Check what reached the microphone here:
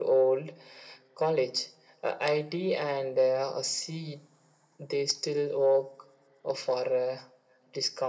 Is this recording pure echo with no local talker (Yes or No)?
Yes